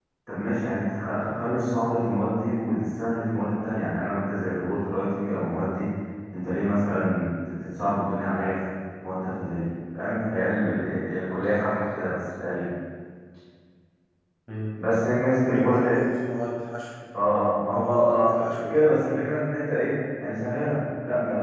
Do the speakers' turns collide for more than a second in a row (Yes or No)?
Yes